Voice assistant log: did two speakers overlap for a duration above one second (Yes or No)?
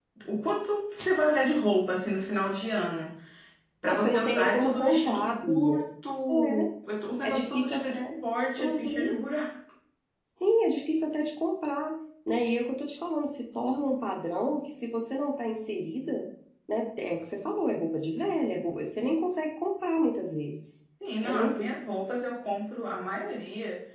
Yes